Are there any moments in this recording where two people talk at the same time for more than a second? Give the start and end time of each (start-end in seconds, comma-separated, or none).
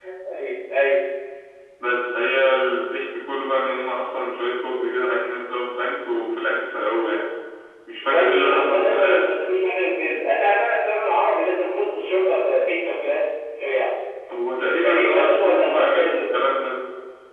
8.0-9.3, 14.8-16.2